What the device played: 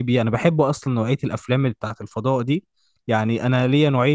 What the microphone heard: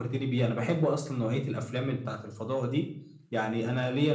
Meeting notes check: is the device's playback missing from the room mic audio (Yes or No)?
No